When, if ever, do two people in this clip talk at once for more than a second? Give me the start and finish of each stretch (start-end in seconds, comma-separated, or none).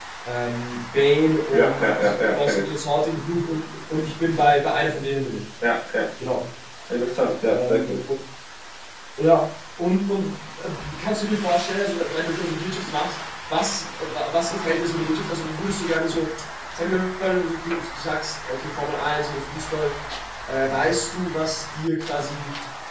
1.5-2.7